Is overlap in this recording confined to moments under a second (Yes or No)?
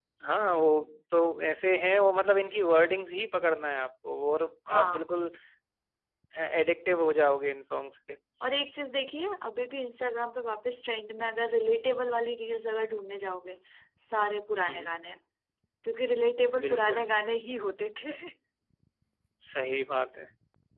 Yes